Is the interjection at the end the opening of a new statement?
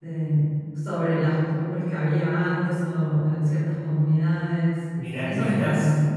Yes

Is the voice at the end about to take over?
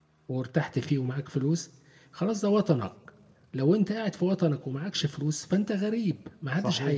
Yes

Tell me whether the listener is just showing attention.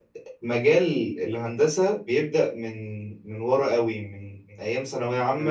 Yes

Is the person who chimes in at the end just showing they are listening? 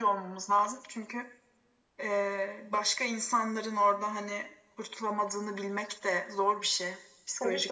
No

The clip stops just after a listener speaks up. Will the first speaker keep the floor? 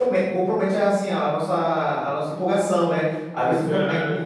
Yes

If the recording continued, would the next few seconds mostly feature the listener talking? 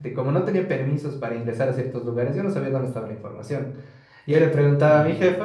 No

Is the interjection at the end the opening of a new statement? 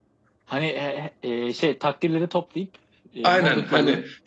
Yes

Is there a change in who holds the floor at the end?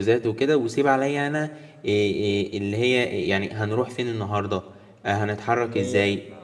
No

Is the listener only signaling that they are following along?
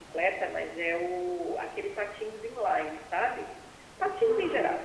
Yes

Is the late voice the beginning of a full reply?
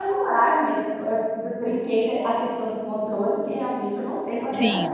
Yes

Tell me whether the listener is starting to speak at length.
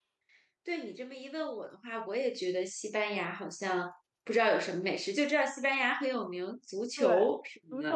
Yes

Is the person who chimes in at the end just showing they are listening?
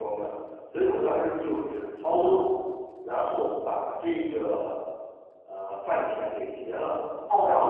Yes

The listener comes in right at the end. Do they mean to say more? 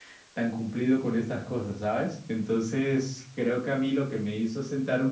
No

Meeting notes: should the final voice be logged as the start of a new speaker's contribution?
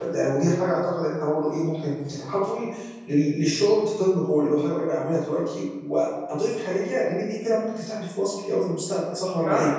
Yes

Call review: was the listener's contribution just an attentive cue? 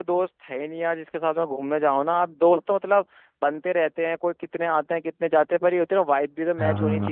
No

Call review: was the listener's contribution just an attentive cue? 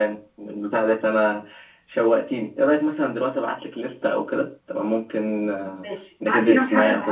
No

